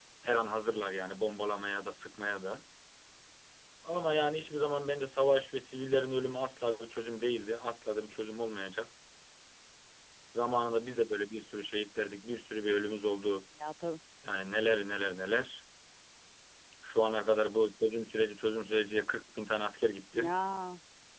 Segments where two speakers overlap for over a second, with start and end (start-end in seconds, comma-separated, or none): none